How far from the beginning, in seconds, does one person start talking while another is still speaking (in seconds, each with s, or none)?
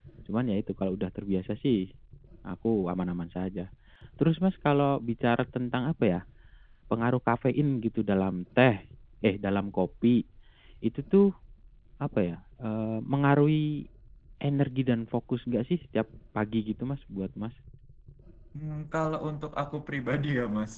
none